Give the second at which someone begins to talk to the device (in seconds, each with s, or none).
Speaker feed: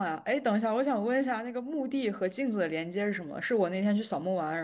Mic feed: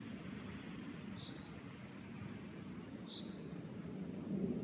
none